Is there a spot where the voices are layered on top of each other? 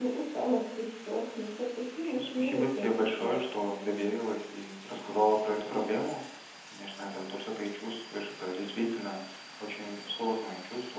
Yes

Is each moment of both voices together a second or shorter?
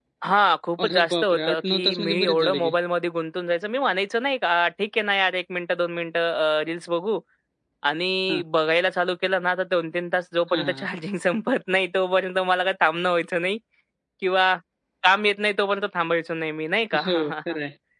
No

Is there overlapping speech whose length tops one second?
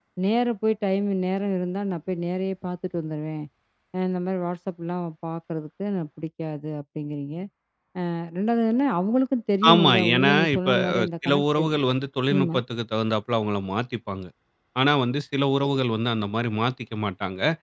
Yes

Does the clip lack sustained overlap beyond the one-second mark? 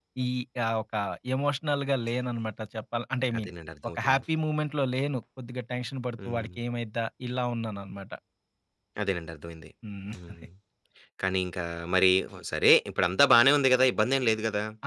Yes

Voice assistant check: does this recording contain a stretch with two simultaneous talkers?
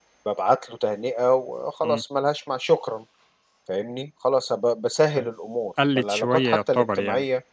Yes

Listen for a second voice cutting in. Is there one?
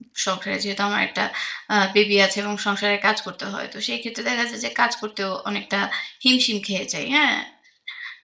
No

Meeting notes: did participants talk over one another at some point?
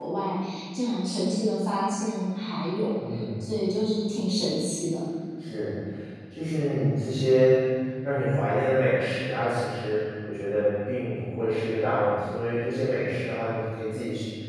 No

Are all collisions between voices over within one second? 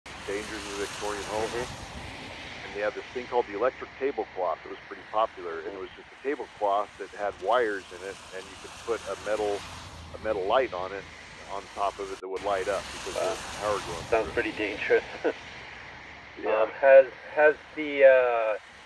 Yes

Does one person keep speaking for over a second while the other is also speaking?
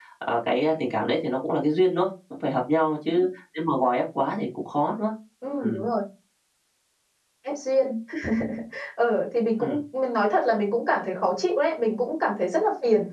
No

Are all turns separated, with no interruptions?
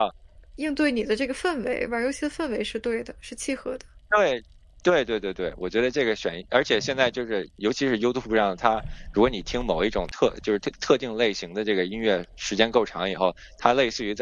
Yes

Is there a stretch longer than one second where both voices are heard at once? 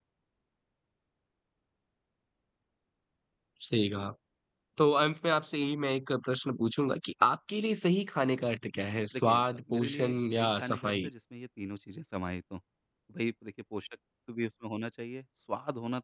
Yes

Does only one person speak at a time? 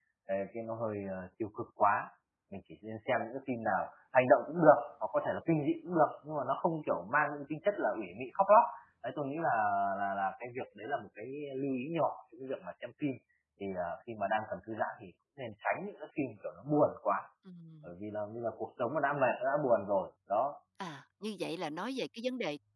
Yes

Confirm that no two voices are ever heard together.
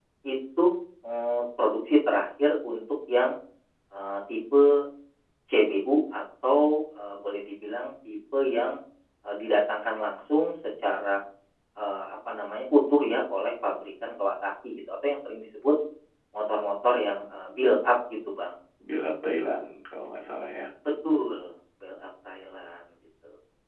Yes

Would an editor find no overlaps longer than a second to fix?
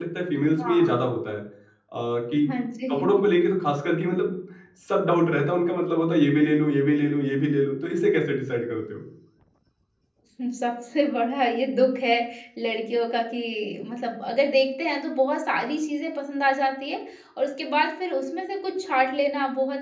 Yes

